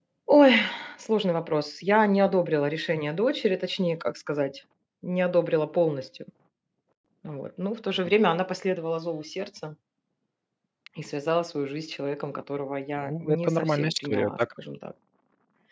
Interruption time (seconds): 13 s

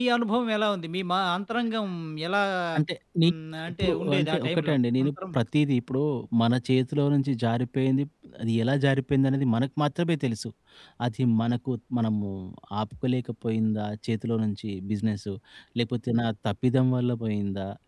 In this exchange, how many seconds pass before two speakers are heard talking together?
4 s

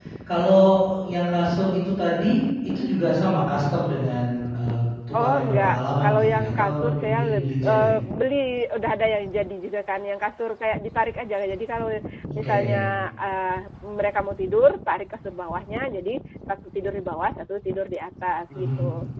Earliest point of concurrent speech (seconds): 5 s

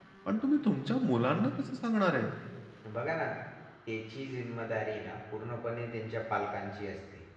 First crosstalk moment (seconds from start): none

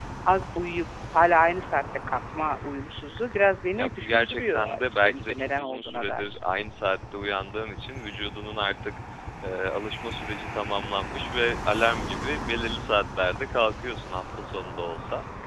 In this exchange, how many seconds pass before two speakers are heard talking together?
4 s

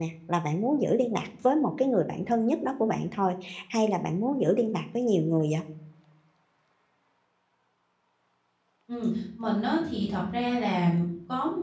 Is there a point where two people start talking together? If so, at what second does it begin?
none

